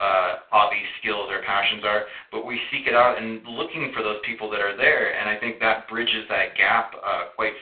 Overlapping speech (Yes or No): No